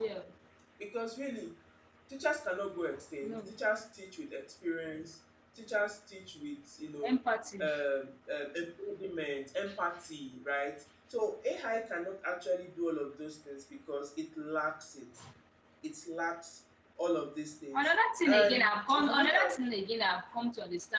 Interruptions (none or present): present